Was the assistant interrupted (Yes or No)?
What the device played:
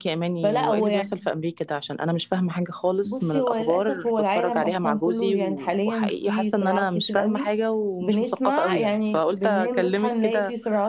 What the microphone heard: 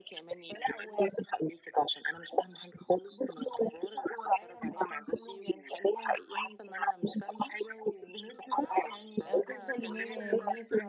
Yes